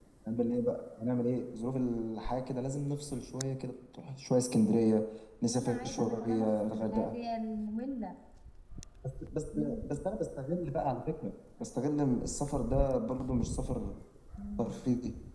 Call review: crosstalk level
present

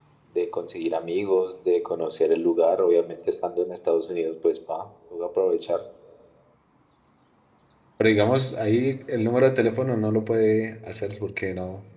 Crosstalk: none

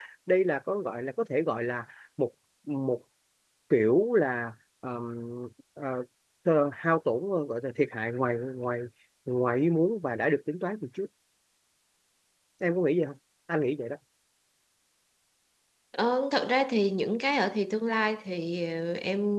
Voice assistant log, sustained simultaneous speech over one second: none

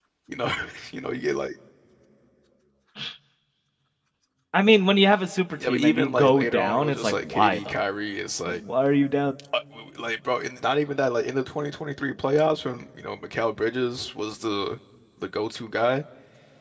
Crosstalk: present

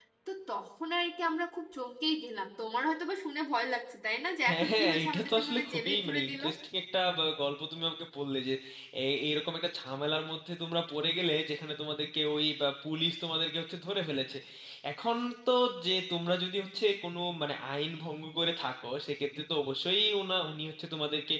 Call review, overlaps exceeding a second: present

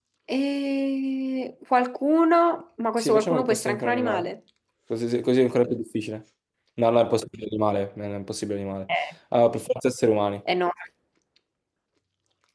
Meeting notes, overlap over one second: present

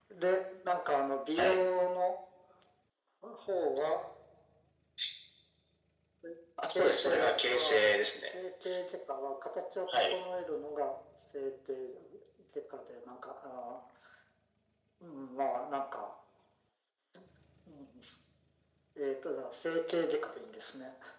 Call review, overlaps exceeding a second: present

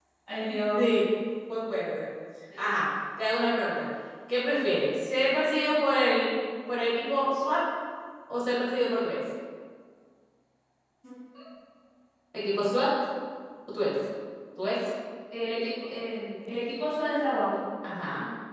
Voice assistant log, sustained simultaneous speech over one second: none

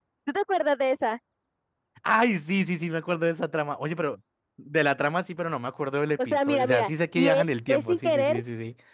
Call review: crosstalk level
present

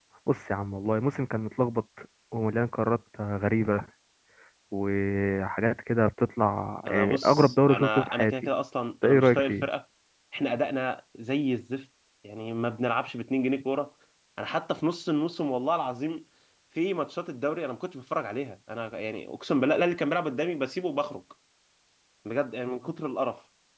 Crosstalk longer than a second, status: present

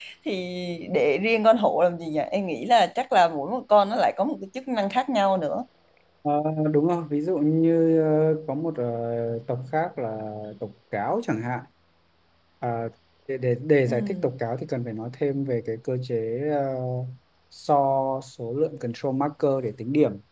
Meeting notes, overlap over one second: none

